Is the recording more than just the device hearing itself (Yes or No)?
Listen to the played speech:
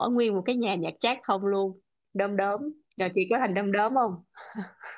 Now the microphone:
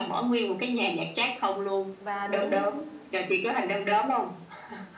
Yes